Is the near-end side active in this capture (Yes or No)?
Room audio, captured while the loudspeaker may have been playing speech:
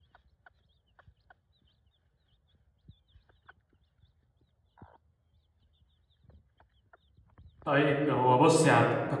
Yes